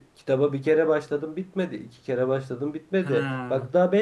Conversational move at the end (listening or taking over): listening